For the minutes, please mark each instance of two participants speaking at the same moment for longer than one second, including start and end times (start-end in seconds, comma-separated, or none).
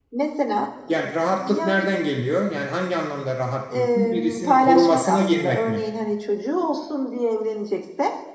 3.7-5.8